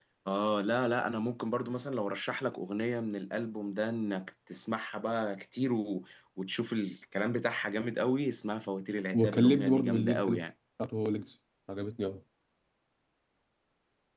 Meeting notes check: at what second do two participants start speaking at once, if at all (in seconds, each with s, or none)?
9.1 s